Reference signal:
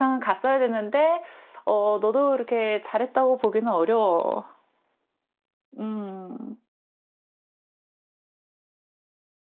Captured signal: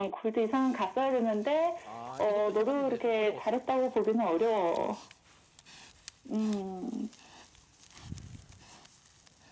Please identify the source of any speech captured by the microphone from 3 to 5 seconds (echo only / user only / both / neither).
both